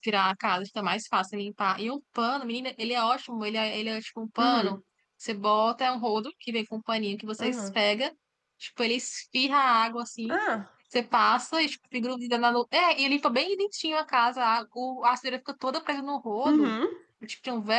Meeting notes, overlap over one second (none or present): none